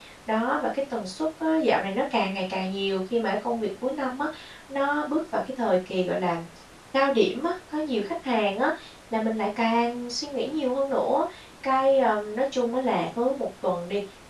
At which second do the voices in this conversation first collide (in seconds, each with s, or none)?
none